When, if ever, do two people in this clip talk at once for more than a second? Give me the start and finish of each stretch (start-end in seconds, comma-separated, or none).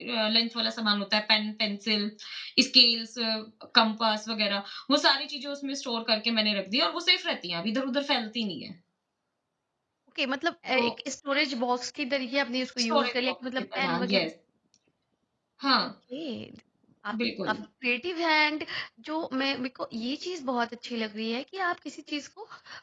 12.9-14.2